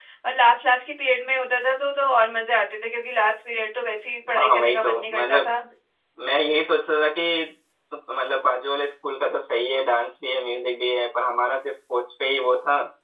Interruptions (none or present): present